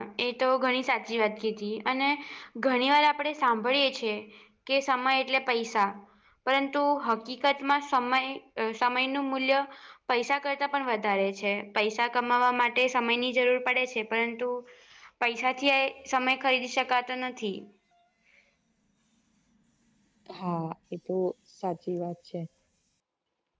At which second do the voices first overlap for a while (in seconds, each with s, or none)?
none